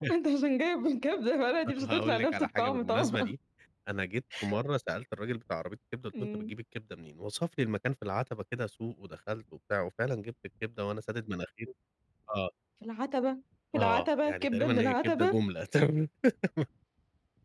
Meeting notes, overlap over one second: present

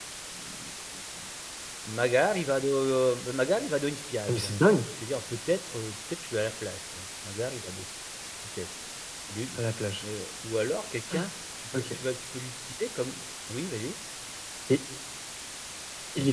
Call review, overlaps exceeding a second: none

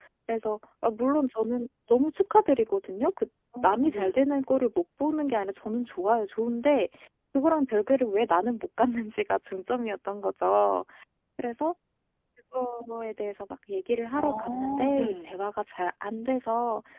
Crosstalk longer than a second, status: present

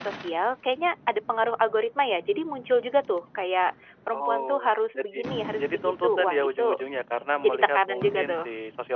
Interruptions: present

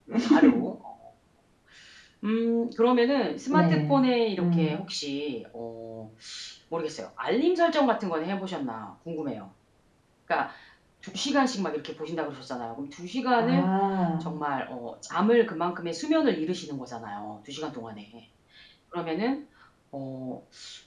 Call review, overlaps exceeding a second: none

